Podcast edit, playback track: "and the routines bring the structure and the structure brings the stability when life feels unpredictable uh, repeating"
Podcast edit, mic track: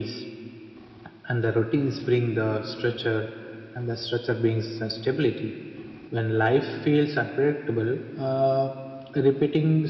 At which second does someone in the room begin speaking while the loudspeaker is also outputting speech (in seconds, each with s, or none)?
none